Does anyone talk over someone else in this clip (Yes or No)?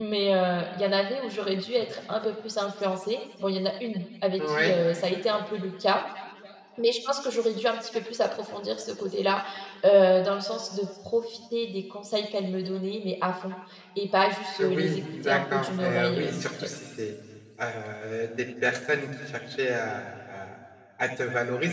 Yes